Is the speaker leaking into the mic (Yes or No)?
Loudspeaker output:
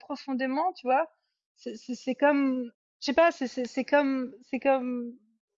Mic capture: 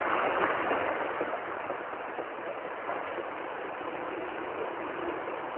No